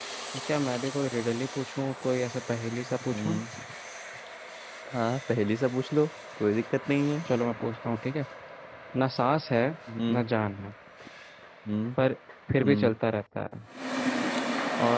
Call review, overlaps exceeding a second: none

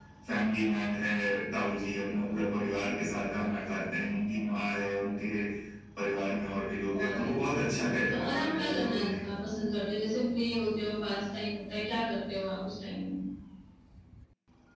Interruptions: present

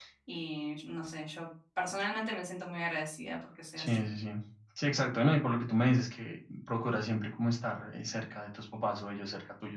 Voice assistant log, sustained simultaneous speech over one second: none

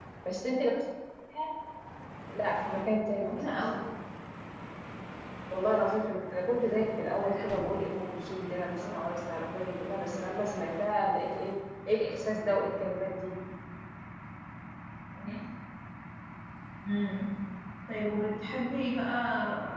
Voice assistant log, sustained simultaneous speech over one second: none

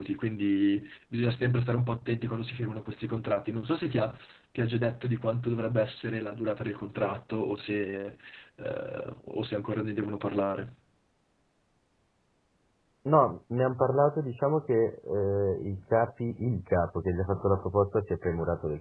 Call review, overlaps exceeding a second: none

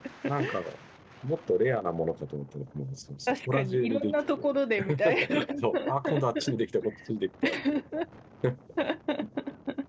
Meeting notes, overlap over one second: present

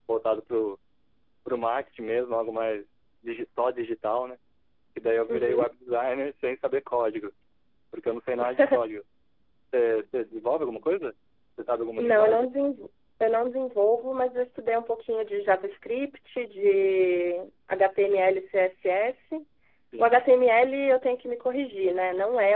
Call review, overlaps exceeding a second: none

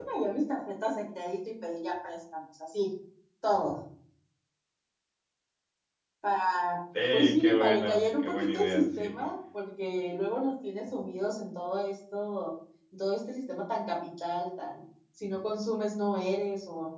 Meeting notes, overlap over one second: present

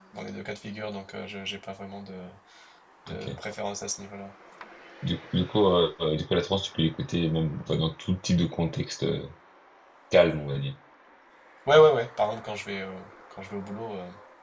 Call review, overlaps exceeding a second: none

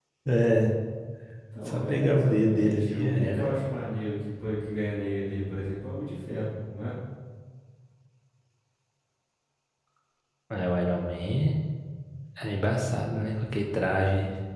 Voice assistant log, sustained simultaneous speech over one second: present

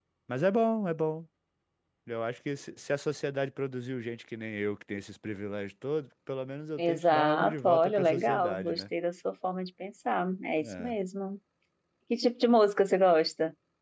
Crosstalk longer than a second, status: present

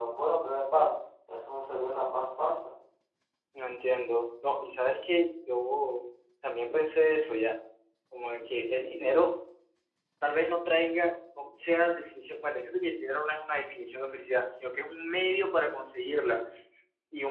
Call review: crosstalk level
none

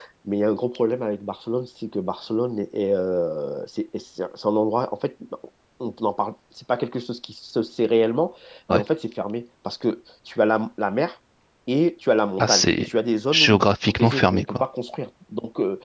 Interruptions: present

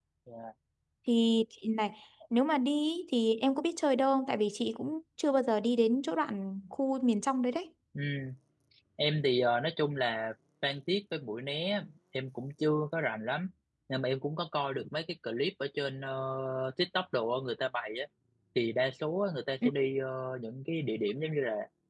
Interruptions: none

